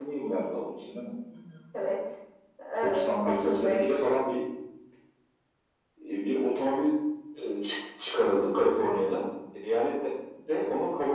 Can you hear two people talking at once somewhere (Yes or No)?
Yes